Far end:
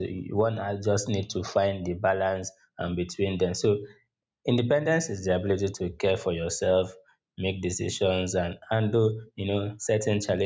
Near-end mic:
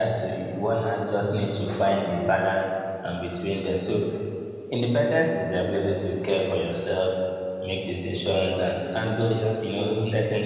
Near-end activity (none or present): present